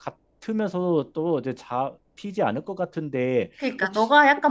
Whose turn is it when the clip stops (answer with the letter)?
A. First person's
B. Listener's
B